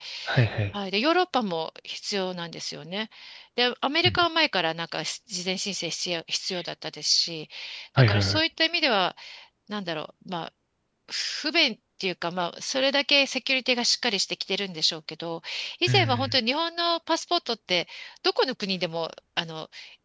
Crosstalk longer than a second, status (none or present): none